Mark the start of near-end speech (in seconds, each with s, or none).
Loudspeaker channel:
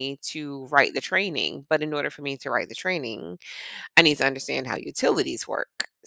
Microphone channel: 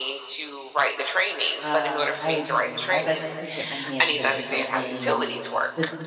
1.6 s